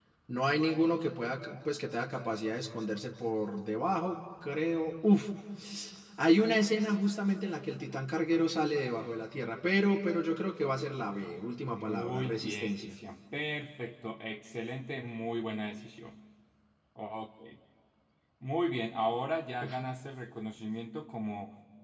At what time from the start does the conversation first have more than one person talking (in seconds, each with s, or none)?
11.7 s